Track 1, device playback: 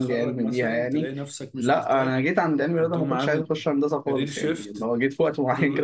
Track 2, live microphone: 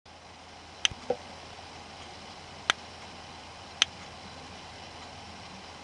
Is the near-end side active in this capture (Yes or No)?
No